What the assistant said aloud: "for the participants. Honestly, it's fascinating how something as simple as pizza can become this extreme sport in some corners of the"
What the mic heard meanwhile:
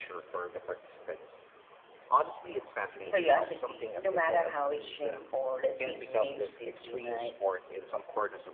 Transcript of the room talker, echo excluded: curiosity, no matter how extreme or, let's say, strange they seem, right?

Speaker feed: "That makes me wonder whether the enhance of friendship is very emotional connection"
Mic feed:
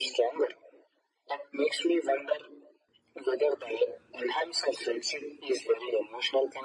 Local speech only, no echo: none

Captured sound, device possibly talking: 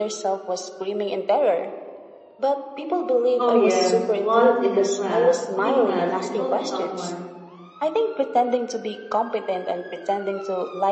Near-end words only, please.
Oh, yes. Once in a class, cooking class, I told someone

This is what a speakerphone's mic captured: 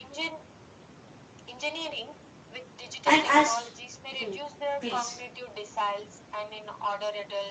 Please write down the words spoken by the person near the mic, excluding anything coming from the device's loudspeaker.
And as, hmm, please.

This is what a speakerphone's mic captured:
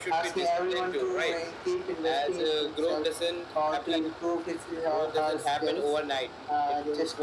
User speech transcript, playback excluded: none

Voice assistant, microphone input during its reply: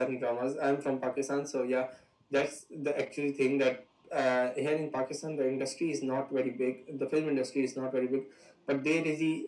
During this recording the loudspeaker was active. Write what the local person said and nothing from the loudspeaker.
none

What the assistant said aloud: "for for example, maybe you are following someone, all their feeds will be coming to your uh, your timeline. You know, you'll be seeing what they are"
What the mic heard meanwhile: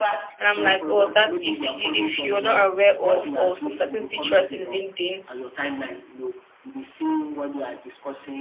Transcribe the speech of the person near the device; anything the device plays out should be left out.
And I'm like, oh, that's if you if you're not aware of or some certain features in LinkedIn.

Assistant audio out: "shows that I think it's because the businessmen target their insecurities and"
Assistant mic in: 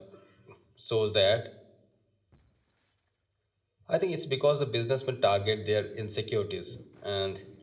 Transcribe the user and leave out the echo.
none

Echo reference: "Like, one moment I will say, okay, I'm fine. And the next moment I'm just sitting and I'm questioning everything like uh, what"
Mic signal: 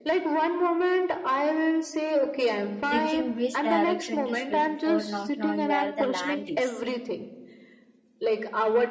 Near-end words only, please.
thinking which direction to swim for, not knowing where the land is.

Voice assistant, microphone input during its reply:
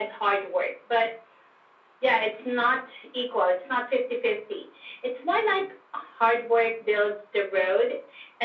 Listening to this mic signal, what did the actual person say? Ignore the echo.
none

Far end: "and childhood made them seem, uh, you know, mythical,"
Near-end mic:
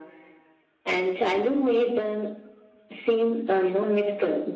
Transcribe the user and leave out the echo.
none

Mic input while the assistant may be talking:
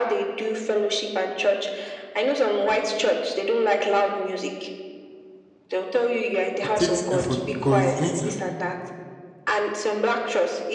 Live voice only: it takes effort because you need to

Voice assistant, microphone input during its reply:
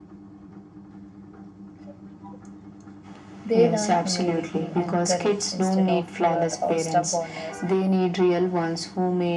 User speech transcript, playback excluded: they learn humility and courage instead of fear or stubbornness.

